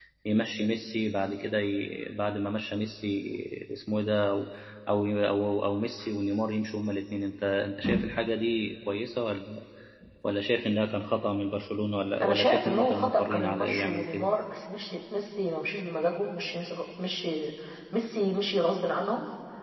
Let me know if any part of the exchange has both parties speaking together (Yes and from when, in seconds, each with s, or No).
Yes, from 12.2 s